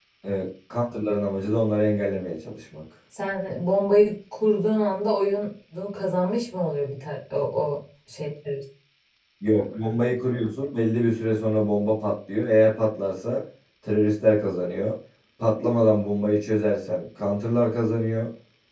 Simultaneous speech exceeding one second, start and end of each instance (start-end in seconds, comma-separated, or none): none